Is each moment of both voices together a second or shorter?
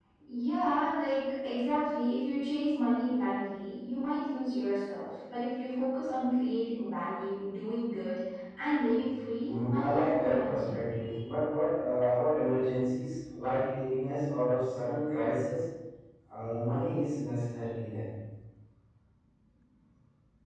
No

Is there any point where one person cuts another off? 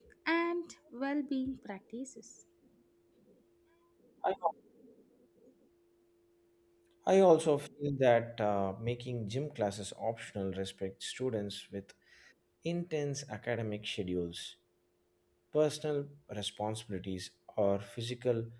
No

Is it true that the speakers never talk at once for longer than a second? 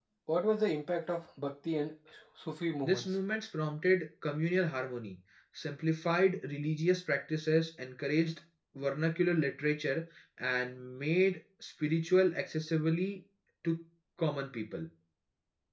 Yes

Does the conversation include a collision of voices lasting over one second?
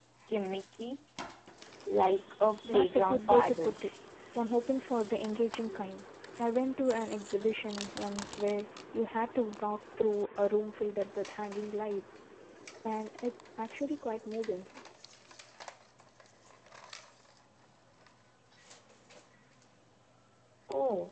Yes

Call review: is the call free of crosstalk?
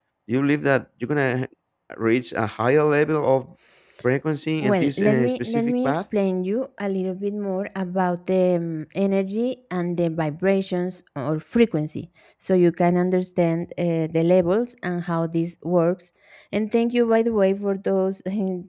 No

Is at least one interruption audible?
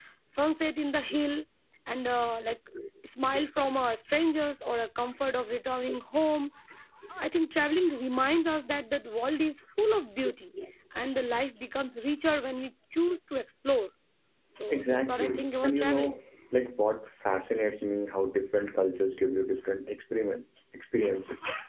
Yes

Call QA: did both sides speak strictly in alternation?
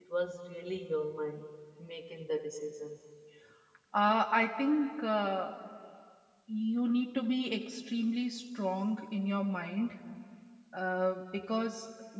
Yes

